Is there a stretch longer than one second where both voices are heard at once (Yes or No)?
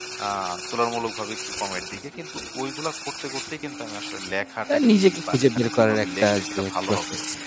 Yes